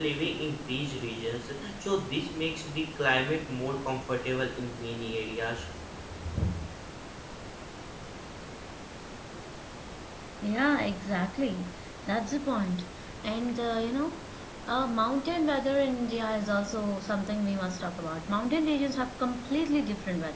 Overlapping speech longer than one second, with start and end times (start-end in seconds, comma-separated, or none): none